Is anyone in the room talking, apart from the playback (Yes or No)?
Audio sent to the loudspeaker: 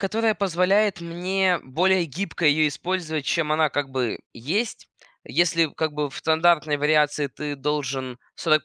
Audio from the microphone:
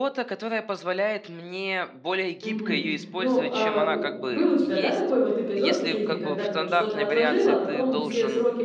Yes